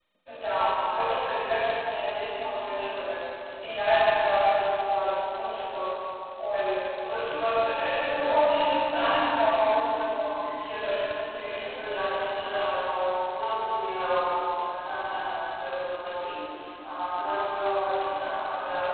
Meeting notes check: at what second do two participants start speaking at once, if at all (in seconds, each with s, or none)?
11.4 s